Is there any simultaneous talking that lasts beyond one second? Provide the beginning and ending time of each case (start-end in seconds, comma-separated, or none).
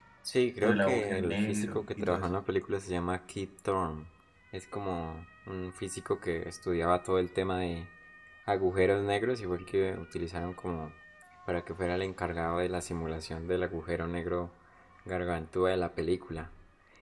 0.6-2.3